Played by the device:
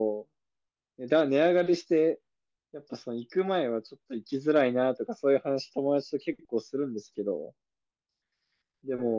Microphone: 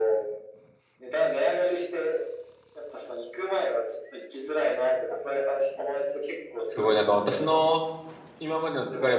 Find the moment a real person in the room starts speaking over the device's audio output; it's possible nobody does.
6.7 s

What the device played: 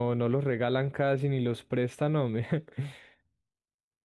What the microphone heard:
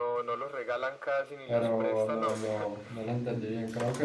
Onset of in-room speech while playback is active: 1.4 s

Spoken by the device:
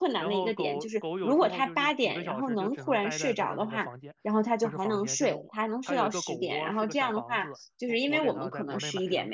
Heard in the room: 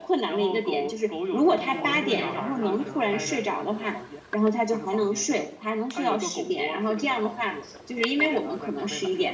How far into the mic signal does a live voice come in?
1.6 s

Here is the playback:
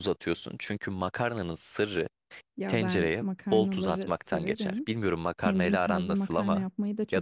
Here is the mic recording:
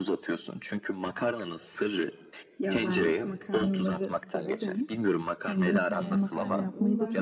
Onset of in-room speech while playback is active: 6.0 s

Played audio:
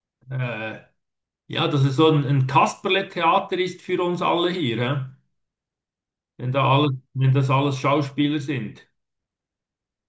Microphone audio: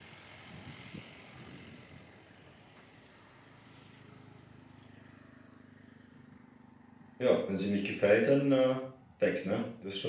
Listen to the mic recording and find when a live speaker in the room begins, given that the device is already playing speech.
7.2 s

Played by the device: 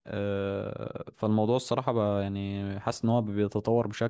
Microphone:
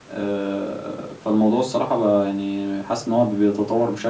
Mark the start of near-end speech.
none

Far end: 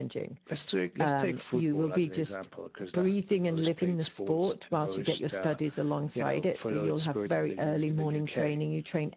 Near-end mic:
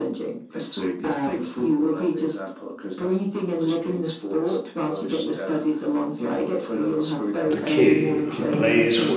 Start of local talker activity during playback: 7.4 s

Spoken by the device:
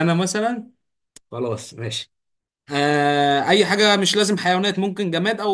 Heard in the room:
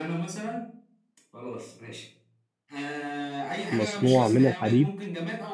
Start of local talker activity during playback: 3.7 s

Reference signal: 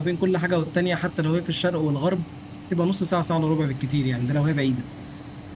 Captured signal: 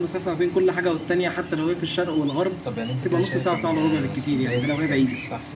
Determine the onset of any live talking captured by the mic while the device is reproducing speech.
2.6 s

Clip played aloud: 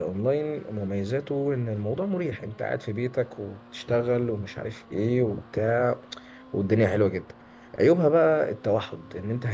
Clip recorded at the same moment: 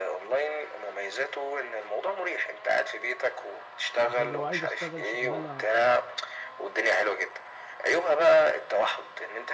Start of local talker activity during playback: 4.0 s

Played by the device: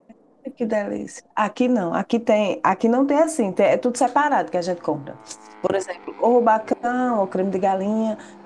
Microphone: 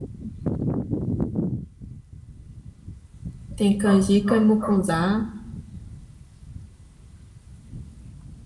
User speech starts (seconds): 3.5 s

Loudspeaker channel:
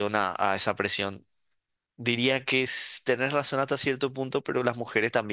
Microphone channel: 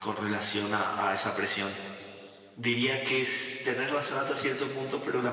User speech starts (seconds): none

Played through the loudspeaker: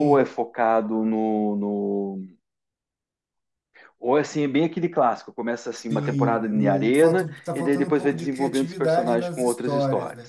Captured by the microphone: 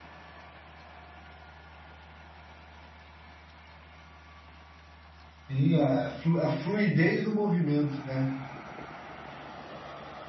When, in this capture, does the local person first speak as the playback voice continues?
5.5 s

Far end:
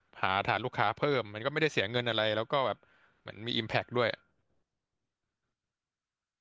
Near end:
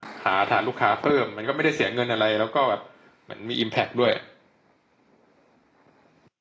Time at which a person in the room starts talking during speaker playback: none

